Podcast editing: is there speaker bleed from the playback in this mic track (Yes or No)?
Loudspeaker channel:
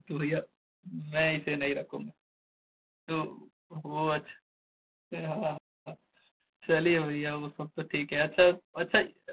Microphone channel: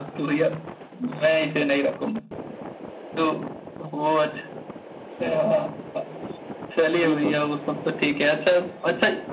Yes